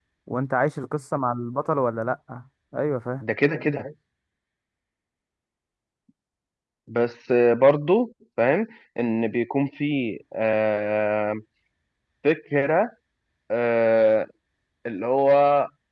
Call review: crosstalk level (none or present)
none